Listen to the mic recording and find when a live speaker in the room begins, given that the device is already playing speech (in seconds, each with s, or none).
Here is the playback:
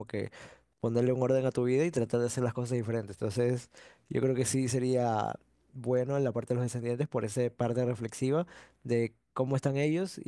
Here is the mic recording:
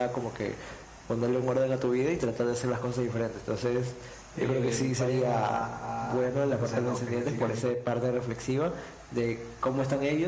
4.3 s